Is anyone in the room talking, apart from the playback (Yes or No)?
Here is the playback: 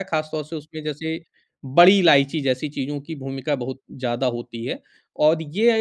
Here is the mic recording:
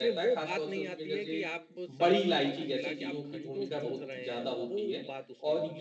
Yes